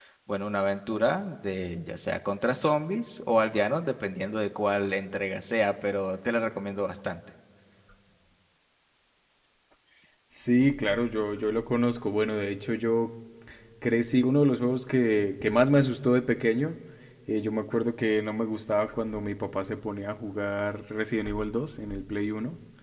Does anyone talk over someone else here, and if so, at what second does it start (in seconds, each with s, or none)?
none